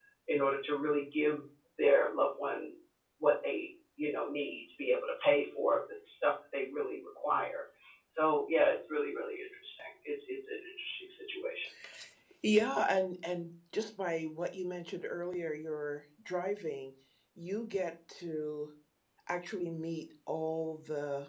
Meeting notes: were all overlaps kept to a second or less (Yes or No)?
Yes